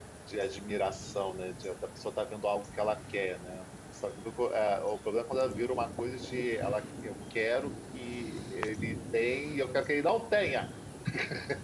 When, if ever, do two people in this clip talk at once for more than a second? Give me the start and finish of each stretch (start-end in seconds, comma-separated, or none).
none